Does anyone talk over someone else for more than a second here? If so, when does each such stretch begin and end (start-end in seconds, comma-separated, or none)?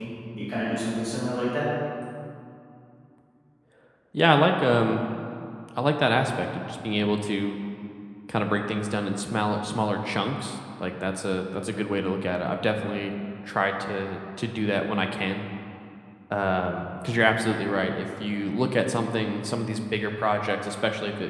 none